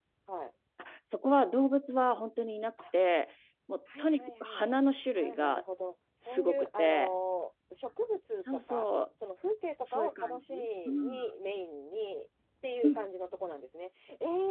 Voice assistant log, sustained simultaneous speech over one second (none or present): present